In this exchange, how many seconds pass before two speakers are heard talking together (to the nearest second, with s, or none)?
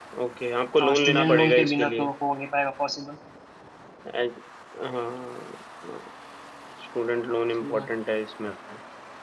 1 s